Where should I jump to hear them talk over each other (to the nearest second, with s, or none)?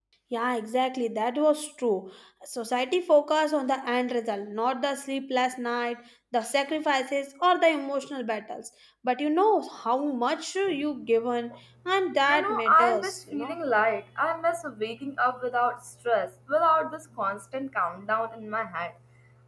12 s